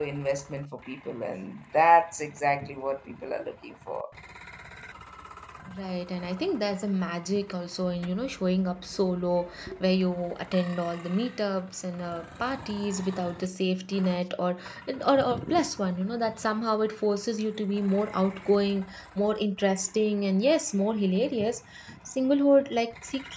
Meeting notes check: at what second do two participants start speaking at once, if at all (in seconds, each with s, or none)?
none